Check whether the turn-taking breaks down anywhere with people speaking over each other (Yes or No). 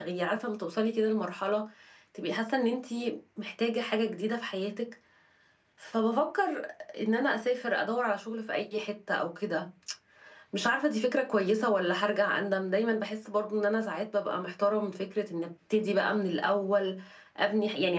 No